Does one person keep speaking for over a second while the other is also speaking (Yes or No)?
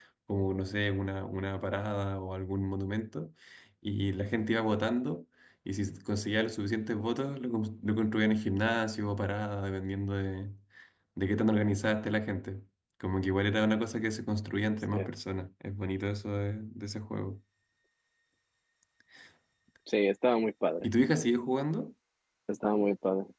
No